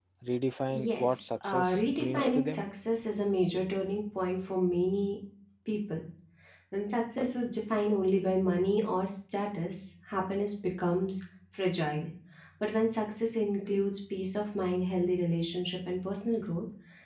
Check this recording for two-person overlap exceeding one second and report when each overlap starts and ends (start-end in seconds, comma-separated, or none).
0.7-2.6